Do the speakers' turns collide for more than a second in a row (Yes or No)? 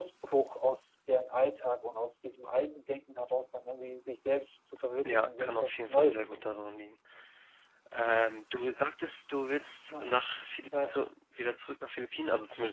Yes